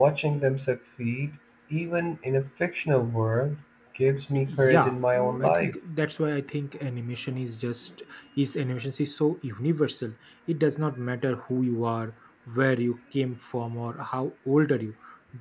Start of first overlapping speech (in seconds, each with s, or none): 4.5 s